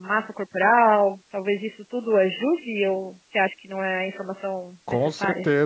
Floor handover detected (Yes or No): Yes